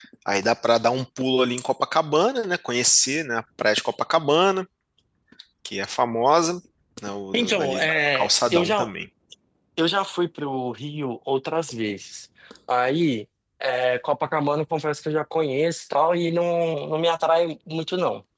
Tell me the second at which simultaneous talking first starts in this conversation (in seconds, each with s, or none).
7.3 s